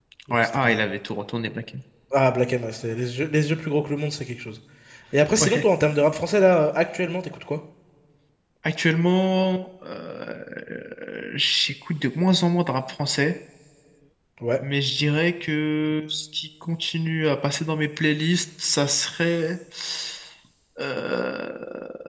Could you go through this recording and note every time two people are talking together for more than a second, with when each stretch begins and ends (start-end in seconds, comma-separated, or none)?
none